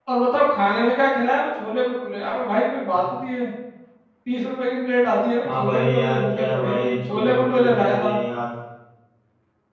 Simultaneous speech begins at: 5.4 s

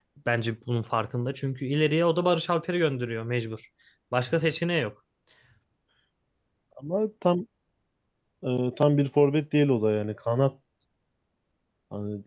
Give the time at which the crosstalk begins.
none

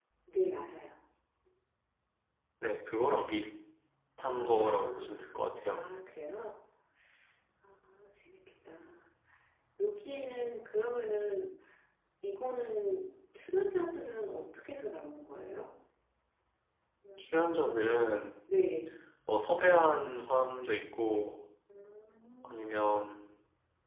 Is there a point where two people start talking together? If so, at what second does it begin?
4.2 s

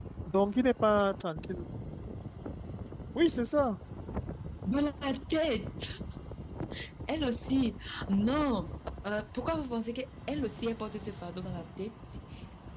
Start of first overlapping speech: none

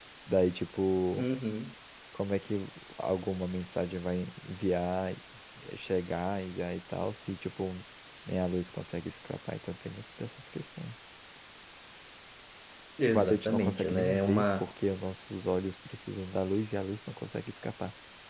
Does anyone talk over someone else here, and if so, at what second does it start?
13.1 s

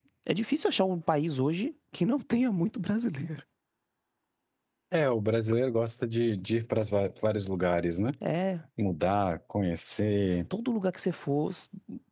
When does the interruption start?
none

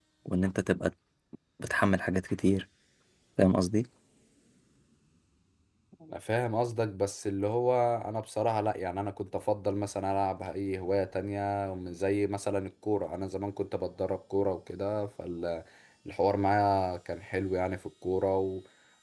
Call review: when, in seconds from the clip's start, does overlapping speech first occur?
none

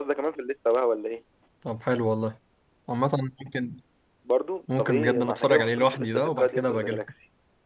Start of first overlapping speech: 4.8 s

